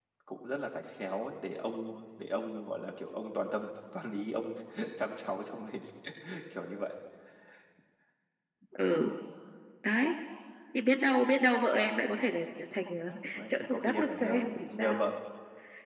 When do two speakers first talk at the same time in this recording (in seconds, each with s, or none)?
13.5 s